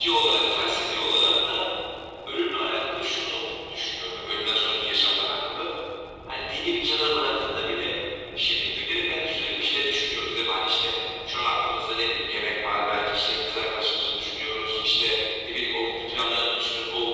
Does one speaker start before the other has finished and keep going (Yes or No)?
No